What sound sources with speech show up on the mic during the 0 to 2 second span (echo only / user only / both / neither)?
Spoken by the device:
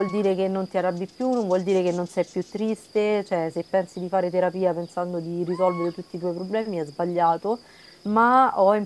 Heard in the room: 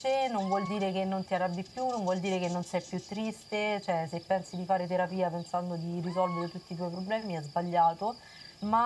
echo only